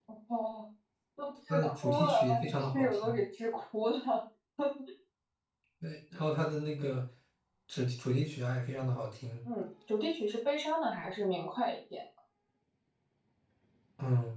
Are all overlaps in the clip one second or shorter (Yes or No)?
No